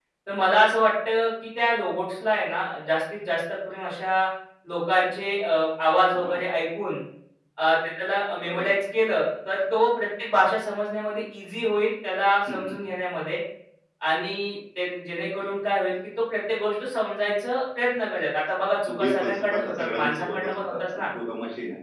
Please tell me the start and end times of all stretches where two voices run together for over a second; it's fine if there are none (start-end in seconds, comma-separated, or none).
19.0-21.1